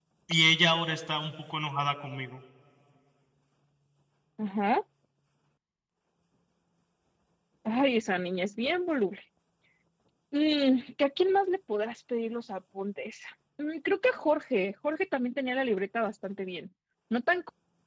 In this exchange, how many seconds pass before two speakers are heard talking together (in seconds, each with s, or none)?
none